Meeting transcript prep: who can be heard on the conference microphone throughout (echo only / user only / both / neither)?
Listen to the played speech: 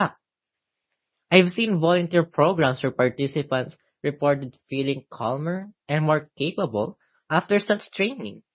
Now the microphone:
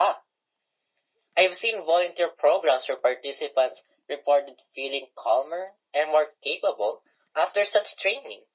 echo only